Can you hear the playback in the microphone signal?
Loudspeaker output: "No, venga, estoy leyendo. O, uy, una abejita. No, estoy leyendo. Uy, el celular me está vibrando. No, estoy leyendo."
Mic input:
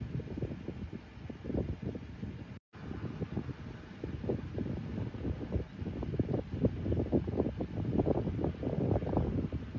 No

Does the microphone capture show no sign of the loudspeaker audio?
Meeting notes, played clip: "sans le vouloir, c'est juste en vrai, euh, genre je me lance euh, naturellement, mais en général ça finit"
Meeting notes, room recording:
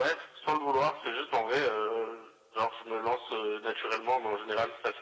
No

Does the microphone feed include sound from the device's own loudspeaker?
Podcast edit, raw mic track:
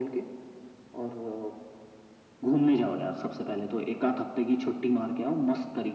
Yes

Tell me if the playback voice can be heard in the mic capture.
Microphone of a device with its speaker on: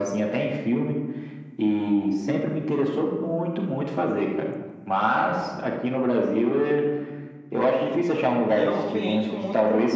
Yes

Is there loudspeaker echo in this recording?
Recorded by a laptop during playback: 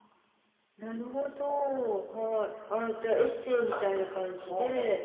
Yes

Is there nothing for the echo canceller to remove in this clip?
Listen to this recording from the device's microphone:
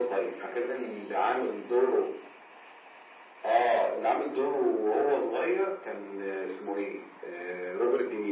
No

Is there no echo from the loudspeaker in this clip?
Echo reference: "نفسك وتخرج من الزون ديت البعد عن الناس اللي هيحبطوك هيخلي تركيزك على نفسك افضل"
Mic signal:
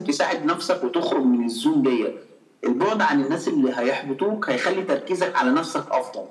No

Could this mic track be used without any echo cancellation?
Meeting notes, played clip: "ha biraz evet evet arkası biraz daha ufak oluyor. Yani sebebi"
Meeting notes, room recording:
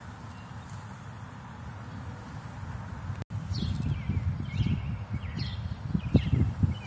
Yes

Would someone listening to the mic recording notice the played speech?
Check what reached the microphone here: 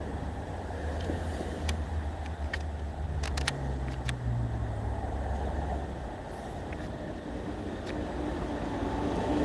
No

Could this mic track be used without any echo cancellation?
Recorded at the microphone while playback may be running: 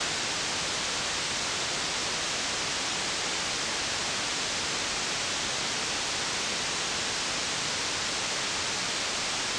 Yes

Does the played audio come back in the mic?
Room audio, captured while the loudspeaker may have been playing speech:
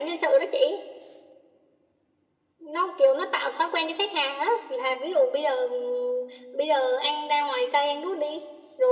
Yes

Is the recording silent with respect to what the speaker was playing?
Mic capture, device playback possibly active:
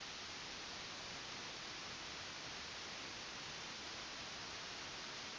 Yes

